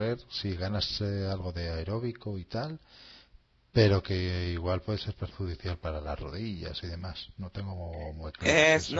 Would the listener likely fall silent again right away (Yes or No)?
No